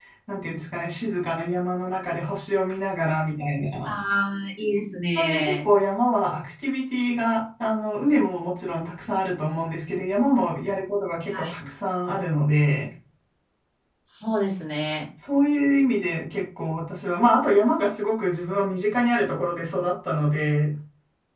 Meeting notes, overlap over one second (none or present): none